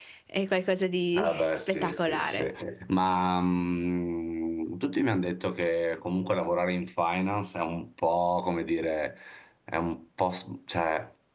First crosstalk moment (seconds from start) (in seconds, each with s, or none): 1.2 s